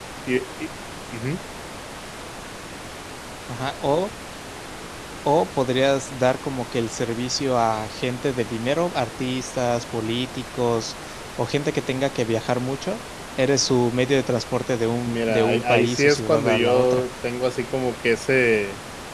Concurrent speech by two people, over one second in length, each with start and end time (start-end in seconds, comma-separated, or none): 15.1-17.0